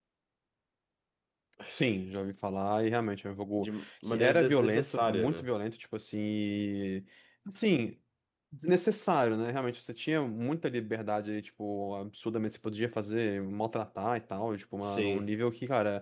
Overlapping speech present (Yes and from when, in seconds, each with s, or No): Yes, from 3.6 s